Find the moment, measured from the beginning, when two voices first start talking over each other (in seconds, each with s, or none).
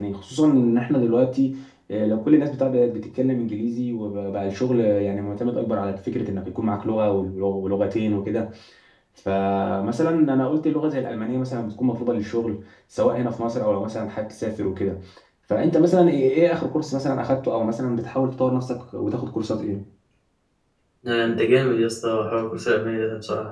none